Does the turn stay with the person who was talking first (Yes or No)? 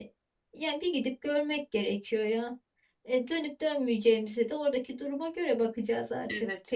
No